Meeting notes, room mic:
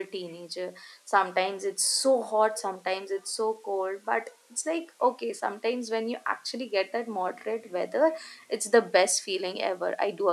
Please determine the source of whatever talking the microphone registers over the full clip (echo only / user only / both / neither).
user only